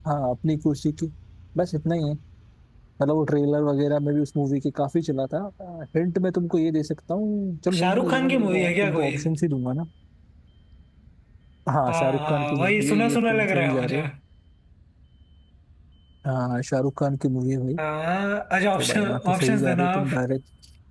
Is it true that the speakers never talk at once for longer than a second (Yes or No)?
No